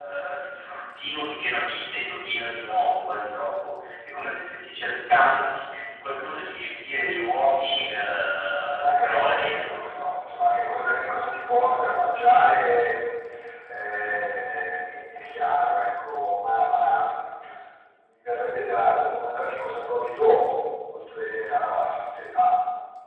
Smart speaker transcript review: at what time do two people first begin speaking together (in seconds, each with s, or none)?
8.8 s